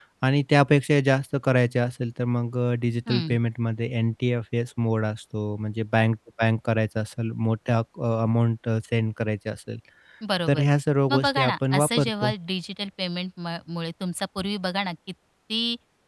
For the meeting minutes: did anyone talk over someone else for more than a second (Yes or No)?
Yes